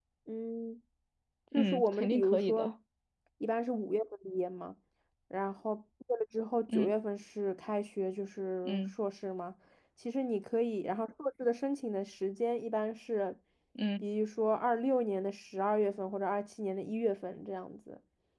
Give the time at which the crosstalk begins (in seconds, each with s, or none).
1.5 s